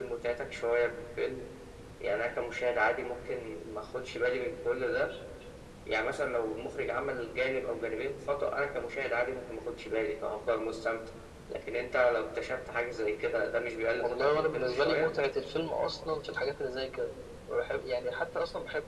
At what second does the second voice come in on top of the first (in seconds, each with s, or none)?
13.9 s